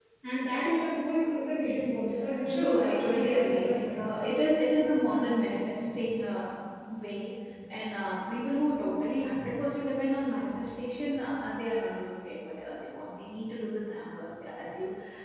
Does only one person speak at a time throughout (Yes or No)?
No